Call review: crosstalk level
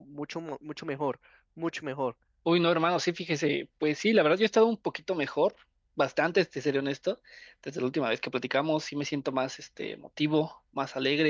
none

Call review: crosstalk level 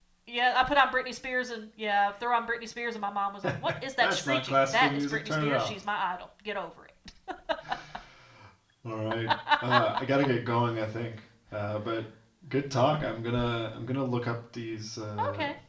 present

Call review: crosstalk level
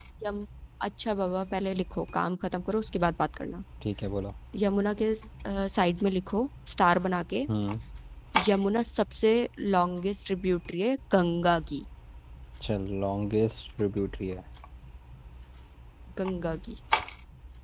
none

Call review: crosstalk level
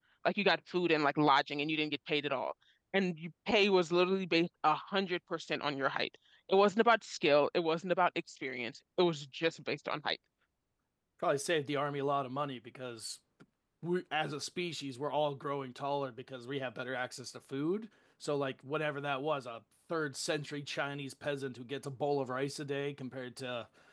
none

